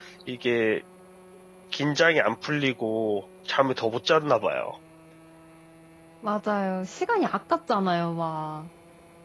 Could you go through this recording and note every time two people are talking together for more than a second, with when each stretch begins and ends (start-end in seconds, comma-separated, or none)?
none